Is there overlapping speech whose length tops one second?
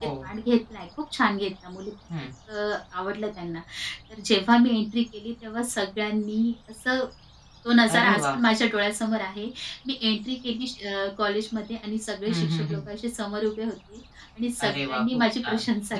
Yes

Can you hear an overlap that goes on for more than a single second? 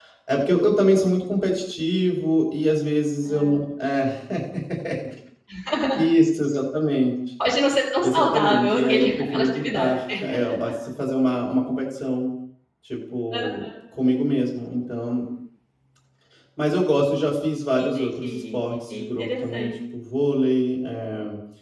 Yes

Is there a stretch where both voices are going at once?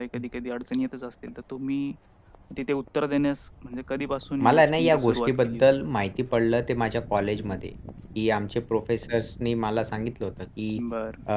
Yes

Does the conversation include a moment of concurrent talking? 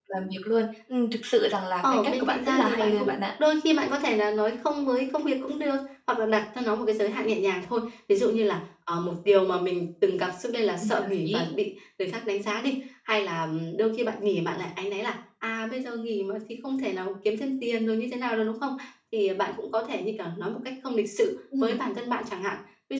Yes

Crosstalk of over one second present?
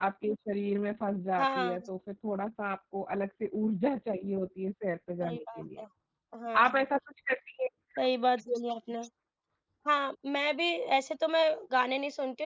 No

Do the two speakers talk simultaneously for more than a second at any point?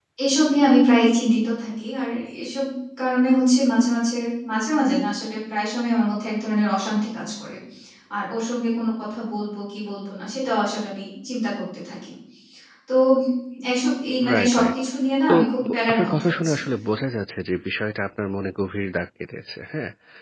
Yes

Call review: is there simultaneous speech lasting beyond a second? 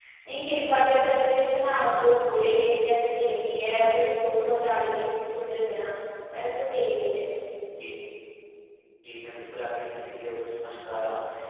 No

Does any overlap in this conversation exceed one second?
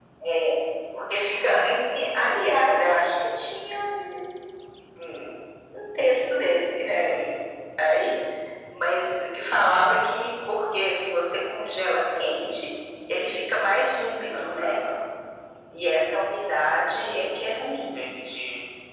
No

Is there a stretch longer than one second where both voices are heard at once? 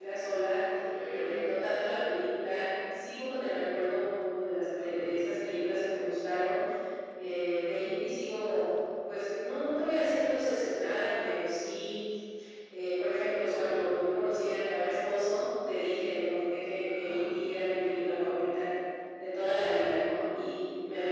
No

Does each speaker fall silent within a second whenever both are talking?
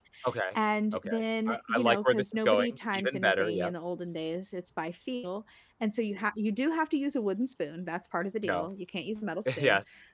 No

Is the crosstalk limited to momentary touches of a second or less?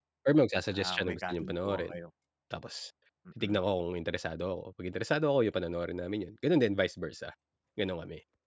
No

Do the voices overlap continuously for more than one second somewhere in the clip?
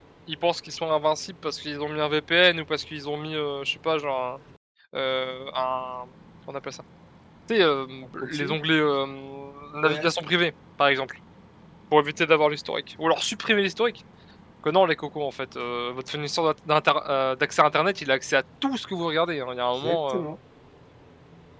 No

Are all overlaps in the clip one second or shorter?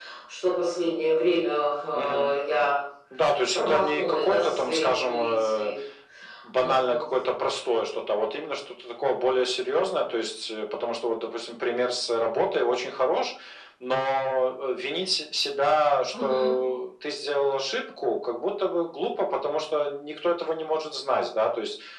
No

